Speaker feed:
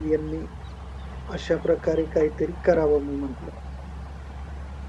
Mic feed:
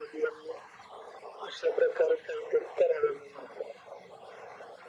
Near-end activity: none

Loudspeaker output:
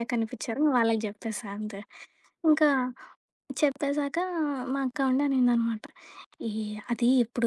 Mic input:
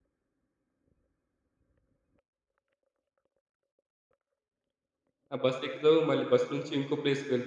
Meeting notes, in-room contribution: present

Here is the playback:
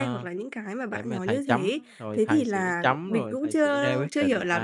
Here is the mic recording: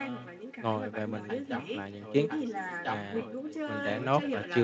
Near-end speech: present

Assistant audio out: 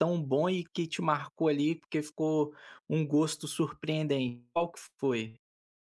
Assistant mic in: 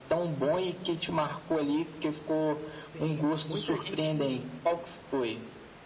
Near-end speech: present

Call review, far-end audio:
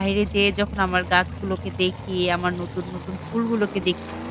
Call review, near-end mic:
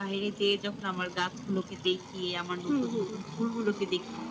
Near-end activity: present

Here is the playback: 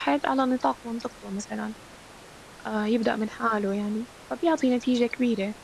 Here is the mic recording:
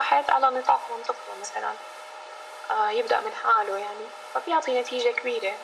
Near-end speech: none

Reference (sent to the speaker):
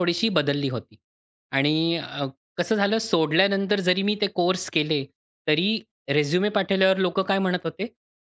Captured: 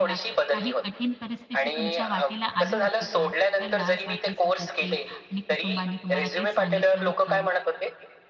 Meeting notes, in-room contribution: present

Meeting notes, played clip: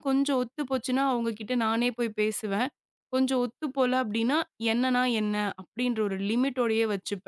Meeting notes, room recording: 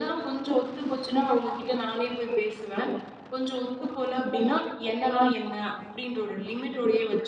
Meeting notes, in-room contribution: none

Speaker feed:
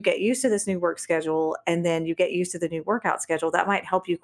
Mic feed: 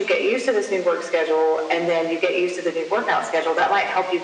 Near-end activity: none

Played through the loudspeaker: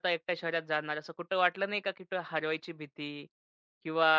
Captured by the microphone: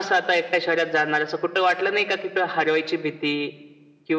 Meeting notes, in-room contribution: none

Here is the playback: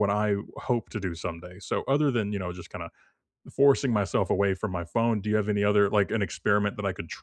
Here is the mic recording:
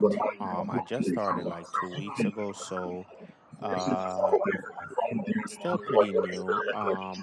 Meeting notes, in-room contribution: present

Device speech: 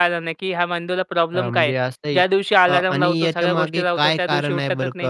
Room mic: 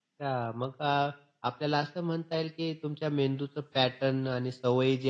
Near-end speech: present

